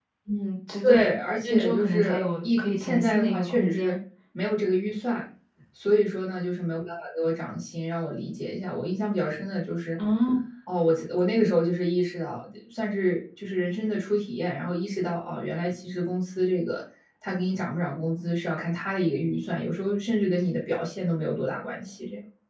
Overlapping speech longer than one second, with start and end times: 0.8-4.0

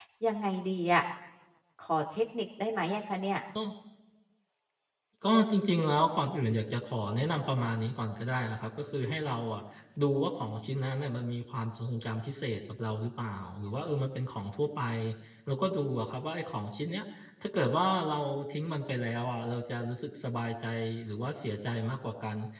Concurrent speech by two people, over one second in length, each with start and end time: none

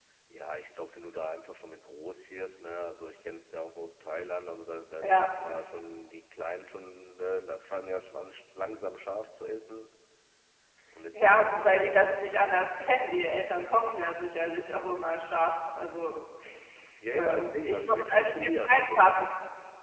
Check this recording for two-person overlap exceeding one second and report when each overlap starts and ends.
17.1-19.1

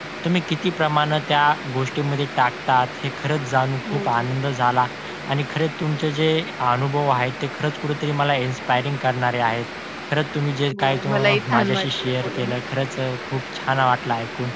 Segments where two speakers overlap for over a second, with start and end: 10.8-12.6

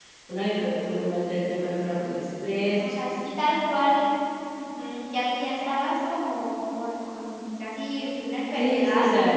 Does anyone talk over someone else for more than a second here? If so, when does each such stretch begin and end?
none

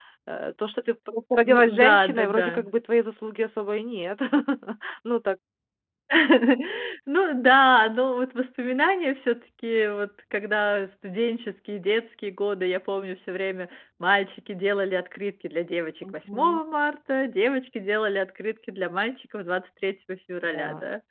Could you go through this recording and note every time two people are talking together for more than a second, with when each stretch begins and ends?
1.3-2.6

